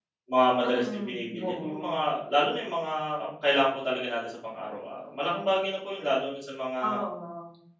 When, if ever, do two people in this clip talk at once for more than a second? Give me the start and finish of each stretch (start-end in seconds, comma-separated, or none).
0.6-2.0